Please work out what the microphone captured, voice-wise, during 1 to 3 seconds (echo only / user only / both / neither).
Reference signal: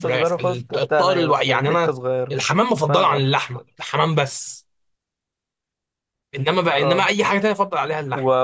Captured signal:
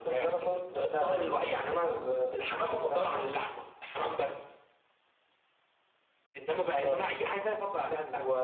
echo only